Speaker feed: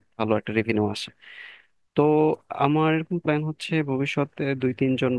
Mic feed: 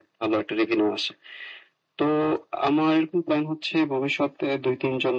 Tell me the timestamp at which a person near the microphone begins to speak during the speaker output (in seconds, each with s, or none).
none